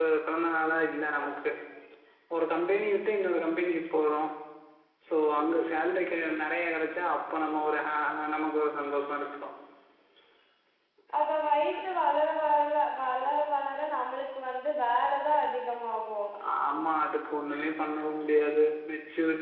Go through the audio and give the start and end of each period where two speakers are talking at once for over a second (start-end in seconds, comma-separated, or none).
none